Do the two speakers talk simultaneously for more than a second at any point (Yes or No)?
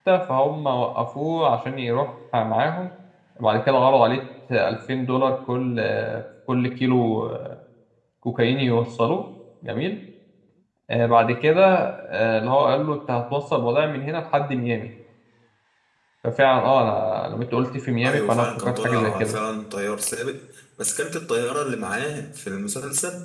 Yes